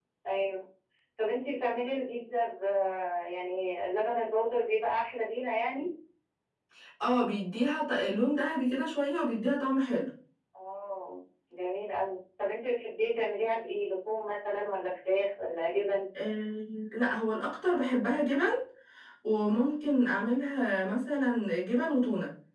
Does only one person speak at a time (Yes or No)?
Yes